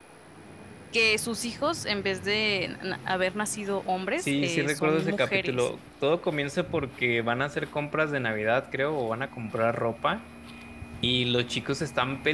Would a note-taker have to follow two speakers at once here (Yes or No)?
Yes